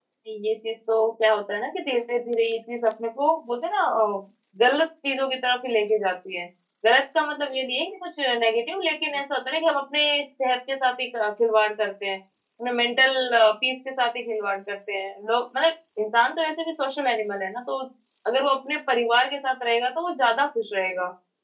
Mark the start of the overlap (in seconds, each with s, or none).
none